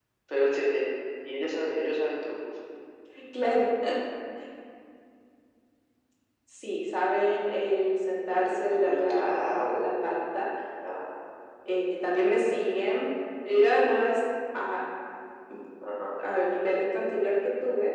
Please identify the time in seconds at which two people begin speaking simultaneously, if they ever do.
8.3 s

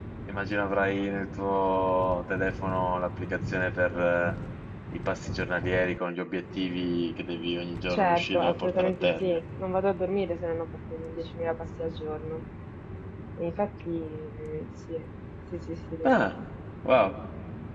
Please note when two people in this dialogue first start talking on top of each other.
7.9 s

